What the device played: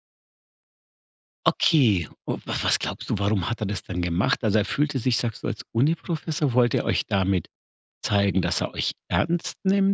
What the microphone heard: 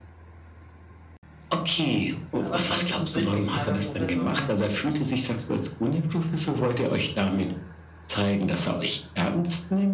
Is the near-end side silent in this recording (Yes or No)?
No